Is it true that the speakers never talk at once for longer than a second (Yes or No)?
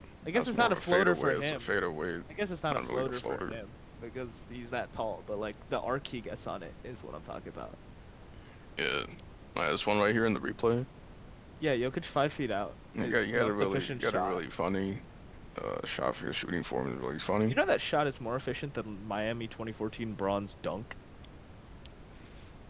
No